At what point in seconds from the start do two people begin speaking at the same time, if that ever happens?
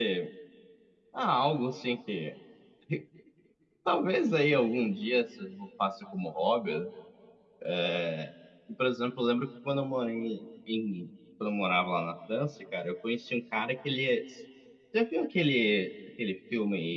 none

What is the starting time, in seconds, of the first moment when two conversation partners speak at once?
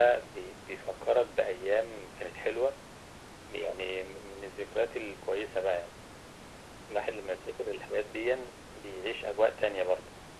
none

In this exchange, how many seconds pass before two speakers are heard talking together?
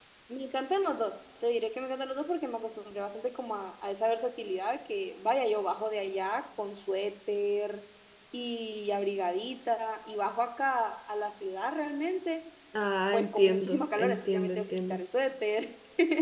13.1 s

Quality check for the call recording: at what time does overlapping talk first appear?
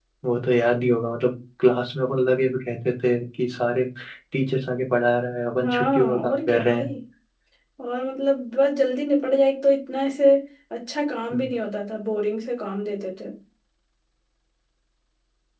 5.6 s

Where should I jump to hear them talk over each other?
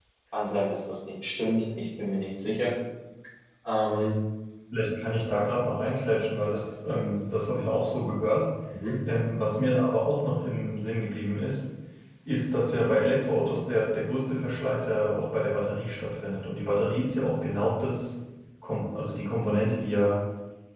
none

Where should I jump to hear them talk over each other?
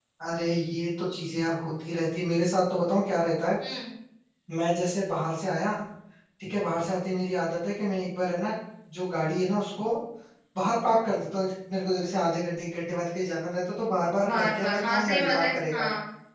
14.2 s

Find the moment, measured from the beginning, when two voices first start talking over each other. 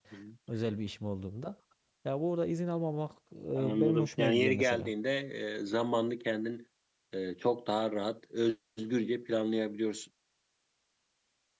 3.5 s

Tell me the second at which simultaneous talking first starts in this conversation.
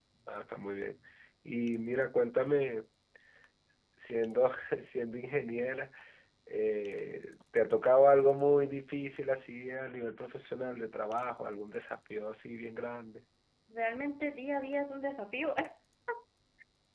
none

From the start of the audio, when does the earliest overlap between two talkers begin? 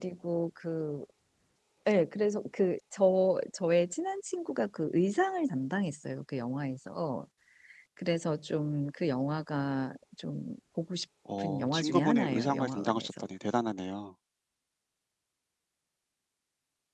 11.3 s

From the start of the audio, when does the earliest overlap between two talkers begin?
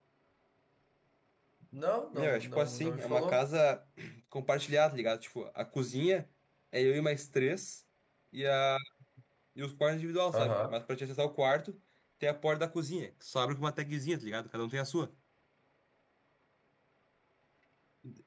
2.1 s

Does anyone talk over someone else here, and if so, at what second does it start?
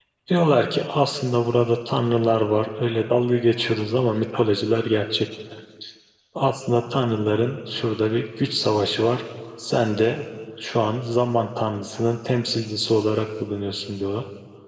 none

